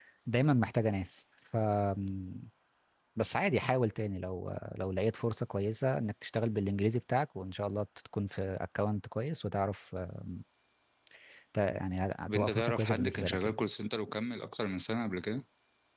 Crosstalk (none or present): present